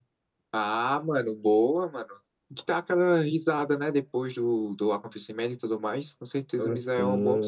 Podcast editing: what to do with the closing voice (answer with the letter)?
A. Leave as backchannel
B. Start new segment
B